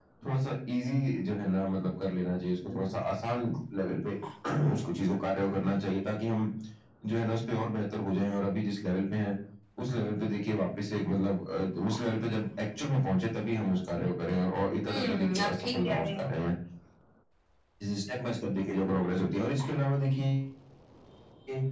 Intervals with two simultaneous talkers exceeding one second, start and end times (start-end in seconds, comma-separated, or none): 14.8-16.3